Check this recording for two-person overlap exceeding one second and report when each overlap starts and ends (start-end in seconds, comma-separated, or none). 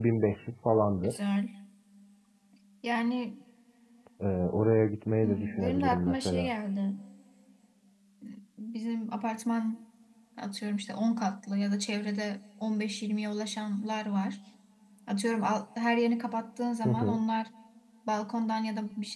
5.2-6.5